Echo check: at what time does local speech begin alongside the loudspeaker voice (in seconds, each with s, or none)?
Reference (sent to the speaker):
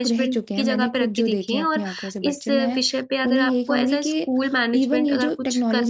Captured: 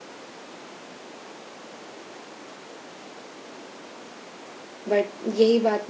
4.9 s